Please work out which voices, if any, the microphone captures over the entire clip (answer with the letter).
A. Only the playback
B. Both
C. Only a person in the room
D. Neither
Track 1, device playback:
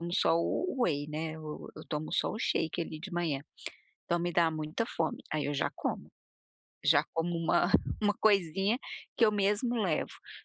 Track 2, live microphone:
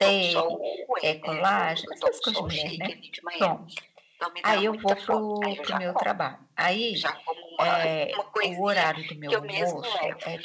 B